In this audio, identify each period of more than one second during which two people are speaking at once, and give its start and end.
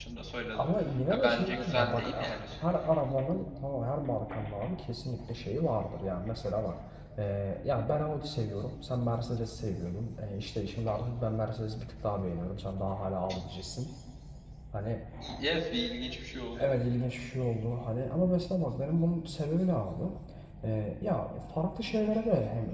1.1-2.4

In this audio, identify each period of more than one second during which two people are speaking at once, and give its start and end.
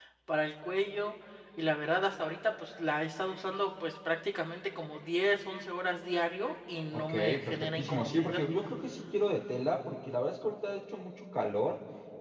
6.9-8.4

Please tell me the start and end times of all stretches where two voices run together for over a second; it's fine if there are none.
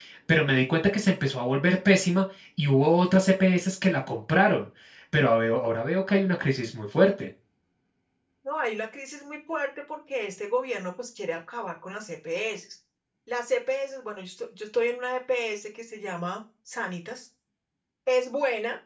none

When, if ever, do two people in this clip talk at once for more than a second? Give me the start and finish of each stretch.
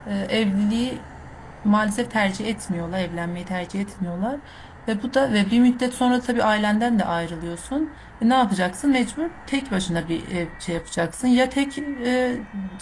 none

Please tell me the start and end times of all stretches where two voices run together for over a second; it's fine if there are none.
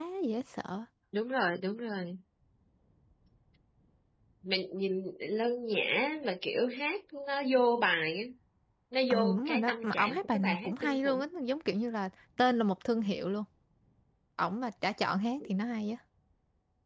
9.1-11.2

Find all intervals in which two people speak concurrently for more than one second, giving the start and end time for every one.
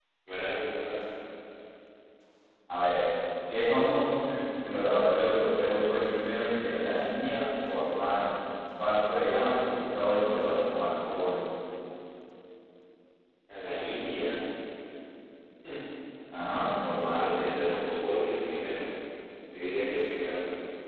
none

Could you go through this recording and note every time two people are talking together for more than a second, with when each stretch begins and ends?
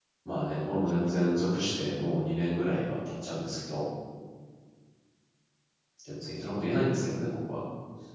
none

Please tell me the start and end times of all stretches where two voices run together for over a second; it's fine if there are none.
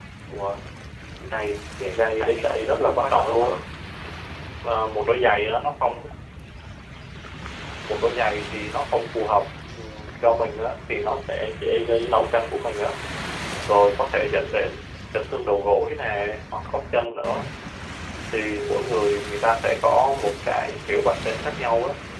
1.9-3.5

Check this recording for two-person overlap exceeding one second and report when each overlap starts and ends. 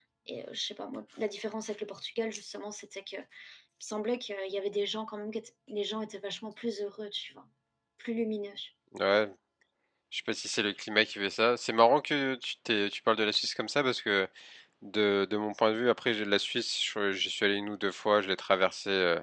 none

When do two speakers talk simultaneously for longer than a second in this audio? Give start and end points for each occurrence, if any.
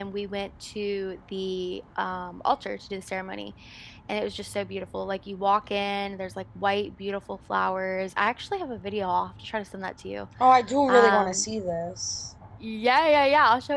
none

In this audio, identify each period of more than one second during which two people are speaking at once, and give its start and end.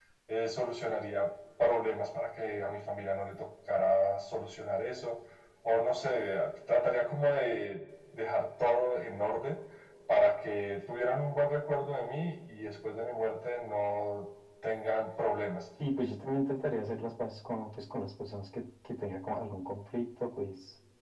none

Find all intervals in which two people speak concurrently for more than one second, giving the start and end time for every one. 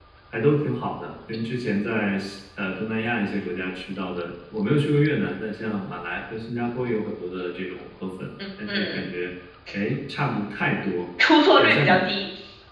none

